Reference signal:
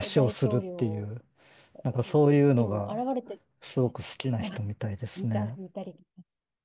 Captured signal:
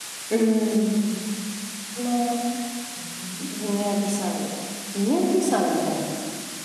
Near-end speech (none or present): present